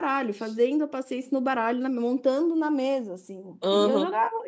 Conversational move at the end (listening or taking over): taking over